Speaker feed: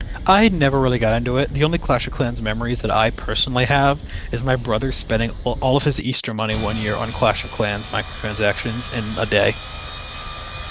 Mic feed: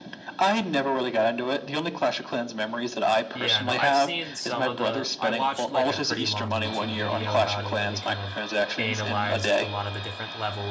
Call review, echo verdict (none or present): present